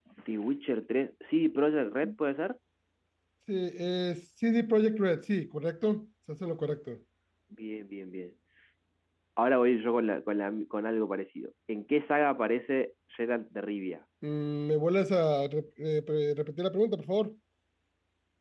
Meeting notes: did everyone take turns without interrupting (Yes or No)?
Yes